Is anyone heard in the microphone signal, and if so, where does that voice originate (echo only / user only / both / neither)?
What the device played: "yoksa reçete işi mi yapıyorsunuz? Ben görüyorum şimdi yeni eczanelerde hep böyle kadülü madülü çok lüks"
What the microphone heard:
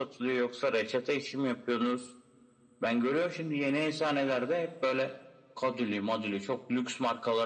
echo only